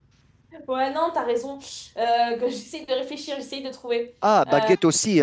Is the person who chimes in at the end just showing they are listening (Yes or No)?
No